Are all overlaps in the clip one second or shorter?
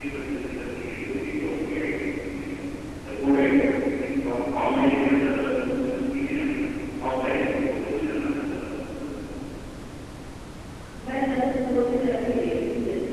Yes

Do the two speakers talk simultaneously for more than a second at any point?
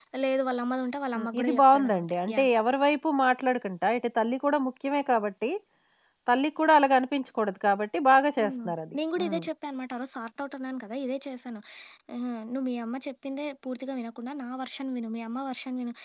Yes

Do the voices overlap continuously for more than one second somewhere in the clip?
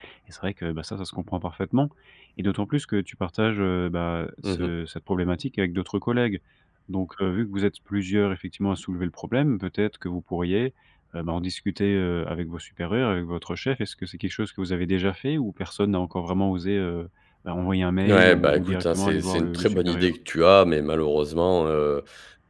Yes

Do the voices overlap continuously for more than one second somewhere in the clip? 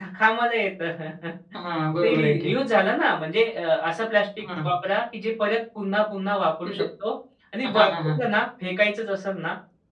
No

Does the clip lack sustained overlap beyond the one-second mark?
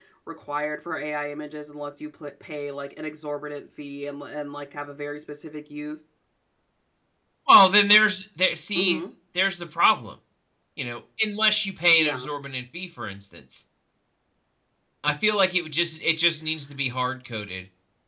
Yes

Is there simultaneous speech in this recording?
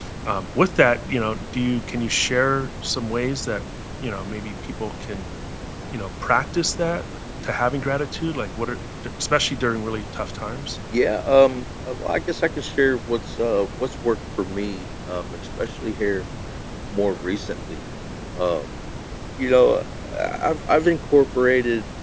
No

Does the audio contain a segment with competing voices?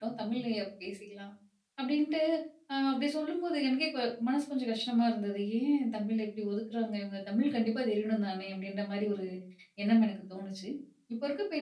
No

